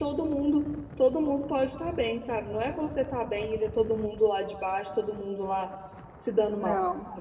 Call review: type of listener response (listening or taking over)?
taking over